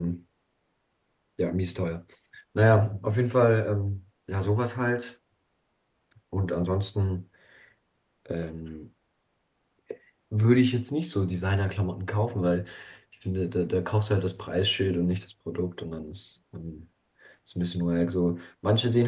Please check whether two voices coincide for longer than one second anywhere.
No

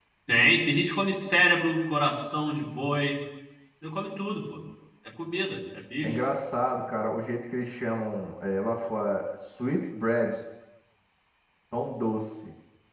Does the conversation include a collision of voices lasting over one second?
No

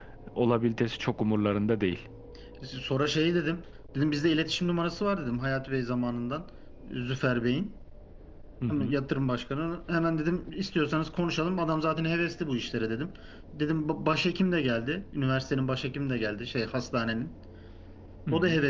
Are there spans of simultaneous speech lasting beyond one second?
No

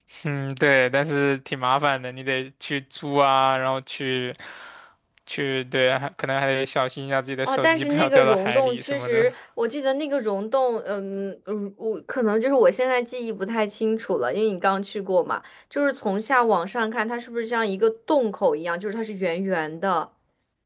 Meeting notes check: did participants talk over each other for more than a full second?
Yes, from 7.4 s

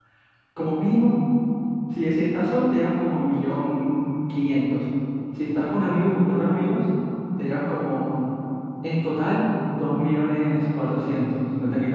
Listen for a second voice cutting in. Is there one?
No

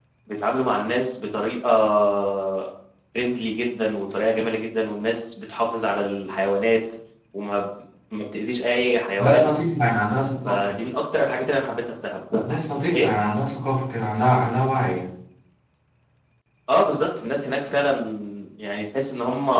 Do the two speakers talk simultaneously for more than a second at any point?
No

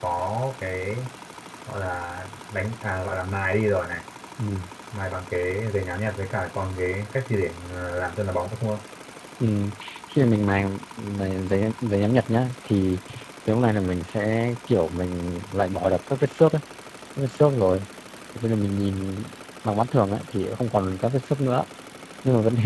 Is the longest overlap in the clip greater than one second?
No

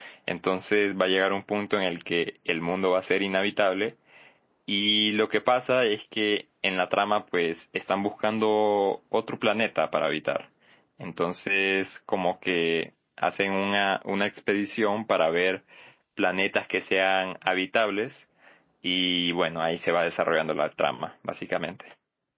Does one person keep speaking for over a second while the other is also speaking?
No

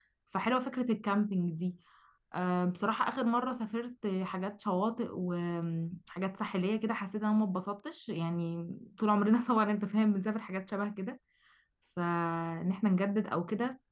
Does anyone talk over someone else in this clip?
No

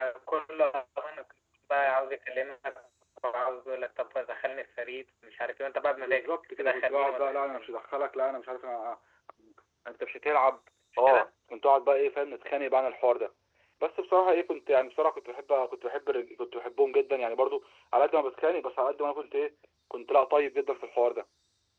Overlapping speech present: Yes, from 6.0 s

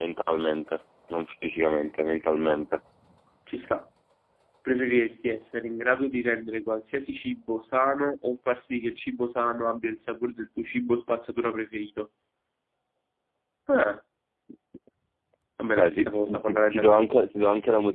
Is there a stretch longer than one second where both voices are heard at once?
Yes, from 15.8 s

